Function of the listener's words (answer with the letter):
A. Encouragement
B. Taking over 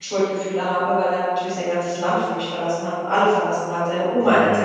A